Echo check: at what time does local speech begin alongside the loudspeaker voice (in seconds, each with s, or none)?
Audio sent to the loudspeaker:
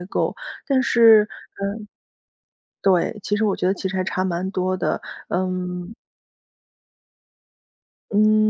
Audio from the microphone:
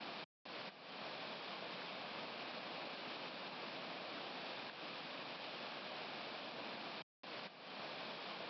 none